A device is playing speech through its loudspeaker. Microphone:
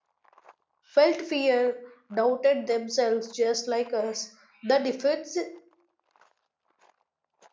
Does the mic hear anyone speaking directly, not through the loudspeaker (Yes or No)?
Yes